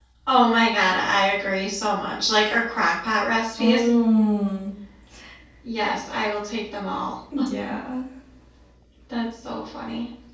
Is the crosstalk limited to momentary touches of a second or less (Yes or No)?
Yes